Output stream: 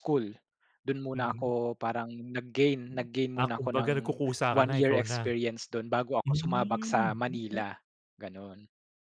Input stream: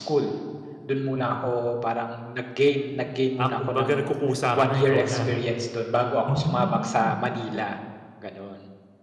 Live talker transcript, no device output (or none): none